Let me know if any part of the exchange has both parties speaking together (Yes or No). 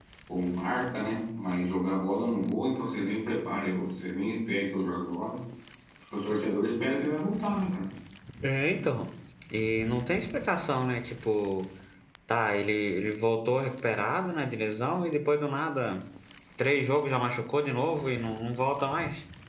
No